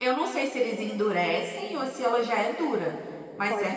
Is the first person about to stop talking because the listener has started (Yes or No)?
Yes